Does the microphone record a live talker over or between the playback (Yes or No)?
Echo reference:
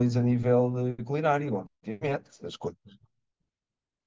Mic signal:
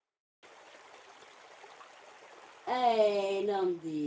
Yes